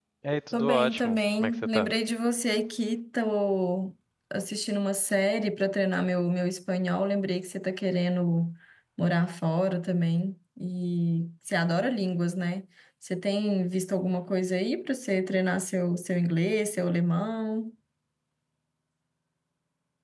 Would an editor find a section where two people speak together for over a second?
Yes, from 0.5 s

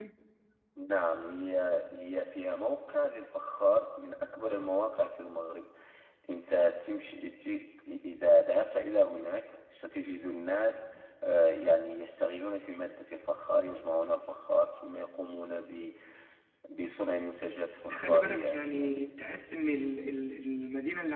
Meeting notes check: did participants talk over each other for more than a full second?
Yes, from 17.8 s

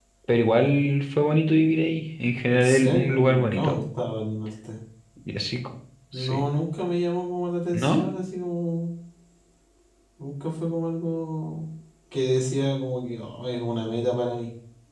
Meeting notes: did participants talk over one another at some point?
Yes, from 2.5 s

